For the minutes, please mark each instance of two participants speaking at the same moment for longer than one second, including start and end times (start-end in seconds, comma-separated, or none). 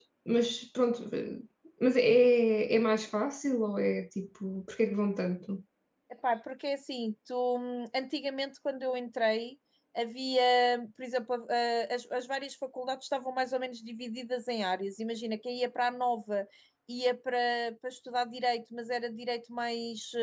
none